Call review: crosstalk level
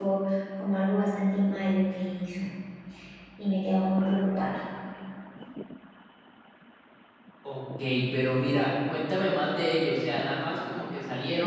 none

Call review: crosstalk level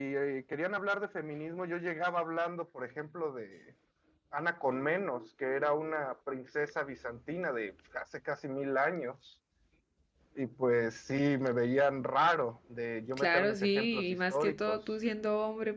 present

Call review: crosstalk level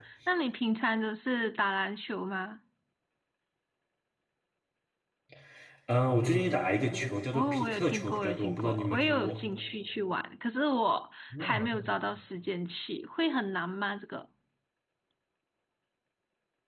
present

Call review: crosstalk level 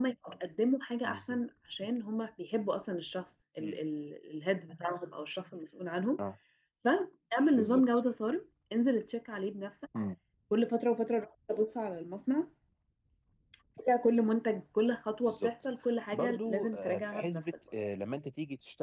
present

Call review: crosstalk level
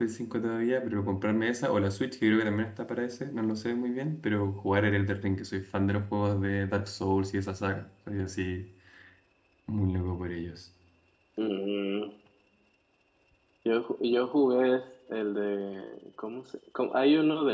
none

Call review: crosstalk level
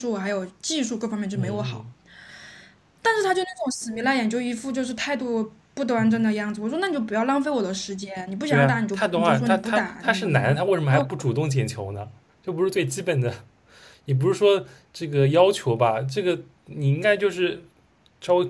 present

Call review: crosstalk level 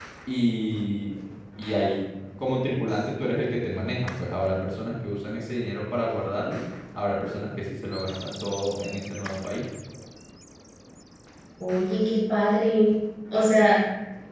none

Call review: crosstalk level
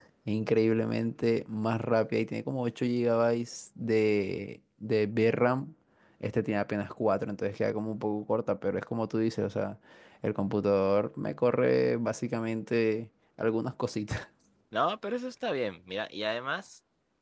none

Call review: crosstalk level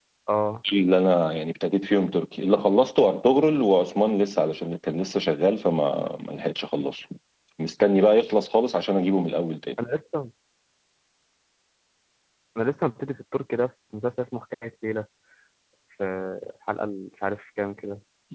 none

